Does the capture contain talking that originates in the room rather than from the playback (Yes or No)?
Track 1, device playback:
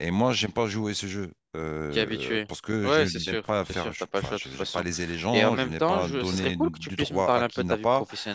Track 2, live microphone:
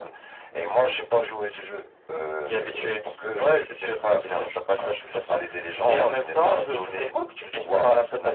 No